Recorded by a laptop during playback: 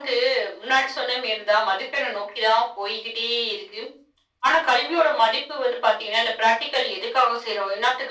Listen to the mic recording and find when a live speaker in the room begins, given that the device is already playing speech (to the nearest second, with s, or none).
none